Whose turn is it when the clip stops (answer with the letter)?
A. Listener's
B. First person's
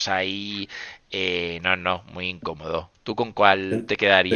A